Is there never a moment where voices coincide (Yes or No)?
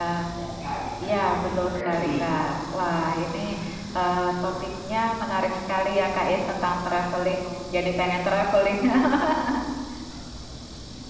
No